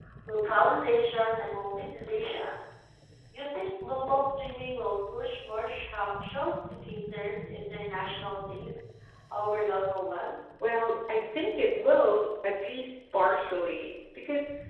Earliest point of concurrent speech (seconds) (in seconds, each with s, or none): none